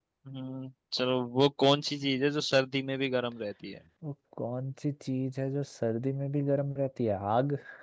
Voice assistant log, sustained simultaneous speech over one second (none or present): none